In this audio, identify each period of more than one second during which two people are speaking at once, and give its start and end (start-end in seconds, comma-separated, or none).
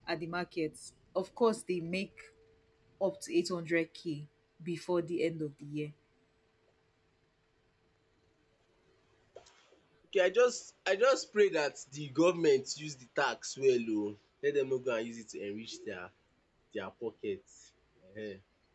none